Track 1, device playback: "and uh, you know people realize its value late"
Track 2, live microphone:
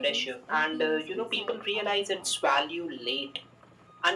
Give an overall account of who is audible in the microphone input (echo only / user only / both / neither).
both